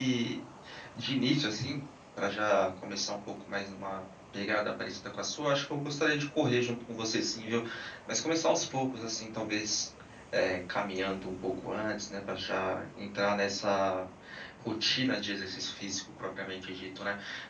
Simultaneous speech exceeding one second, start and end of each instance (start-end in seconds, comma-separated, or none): none